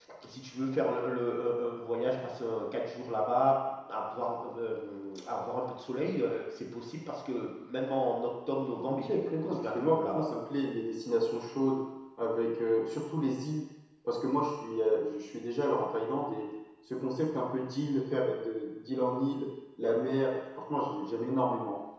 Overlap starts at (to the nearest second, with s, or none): 9 s